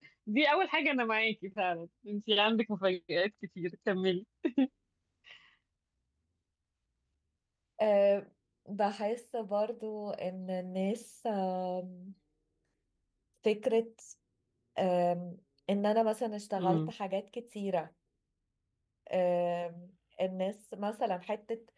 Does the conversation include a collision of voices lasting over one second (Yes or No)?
No